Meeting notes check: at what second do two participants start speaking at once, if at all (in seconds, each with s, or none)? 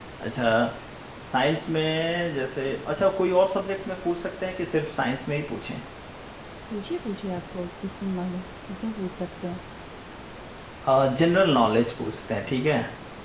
none